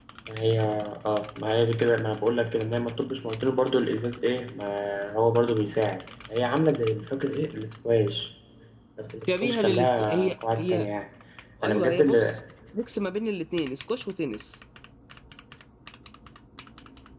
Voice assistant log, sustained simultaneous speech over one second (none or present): present